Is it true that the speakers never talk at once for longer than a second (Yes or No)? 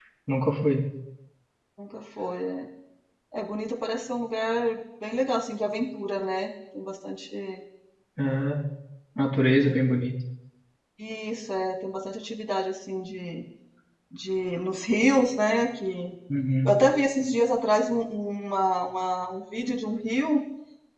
Yes